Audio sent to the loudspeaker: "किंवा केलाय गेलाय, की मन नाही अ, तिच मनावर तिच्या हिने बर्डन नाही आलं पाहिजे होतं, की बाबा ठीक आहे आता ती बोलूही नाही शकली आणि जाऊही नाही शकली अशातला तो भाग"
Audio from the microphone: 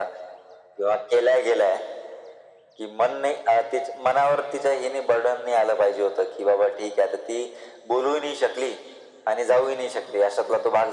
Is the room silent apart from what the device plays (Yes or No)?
Yes